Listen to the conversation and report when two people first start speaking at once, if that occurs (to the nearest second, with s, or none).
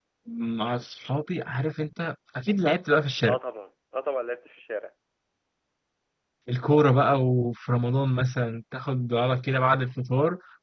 none